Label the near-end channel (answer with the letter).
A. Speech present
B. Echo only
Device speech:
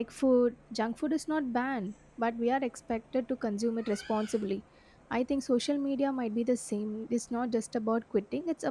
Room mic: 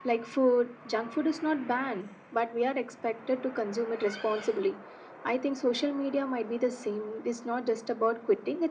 B